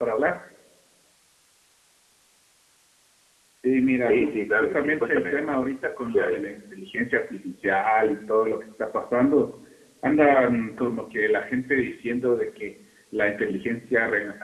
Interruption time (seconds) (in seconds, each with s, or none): 4.0 s